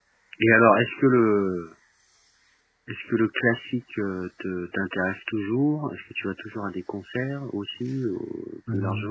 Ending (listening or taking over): taking over